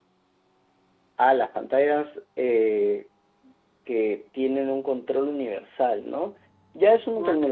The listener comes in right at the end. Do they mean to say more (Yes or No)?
No